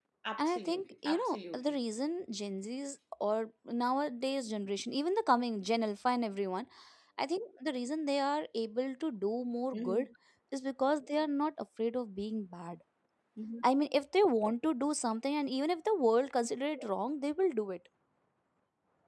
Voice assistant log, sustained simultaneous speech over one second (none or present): present